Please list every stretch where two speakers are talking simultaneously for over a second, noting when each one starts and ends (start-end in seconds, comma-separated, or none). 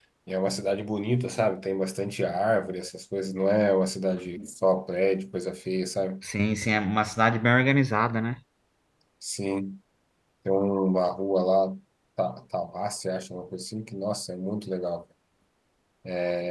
none